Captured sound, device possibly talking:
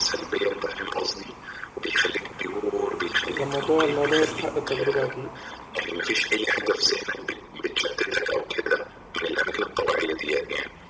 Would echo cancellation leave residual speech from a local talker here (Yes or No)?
Yes